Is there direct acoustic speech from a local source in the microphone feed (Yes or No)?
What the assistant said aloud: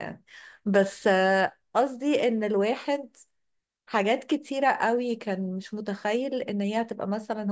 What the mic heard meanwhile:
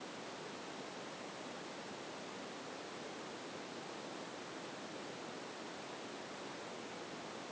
No